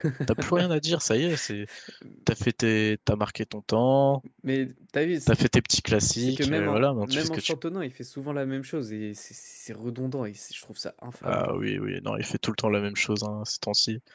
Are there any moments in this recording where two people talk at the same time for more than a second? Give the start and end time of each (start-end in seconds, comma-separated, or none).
6.2-7.6